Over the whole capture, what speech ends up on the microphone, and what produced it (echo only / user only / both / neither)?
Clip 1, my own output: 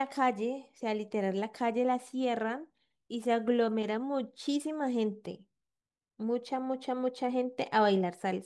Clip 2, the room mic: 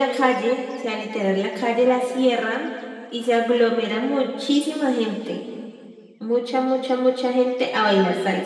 echo only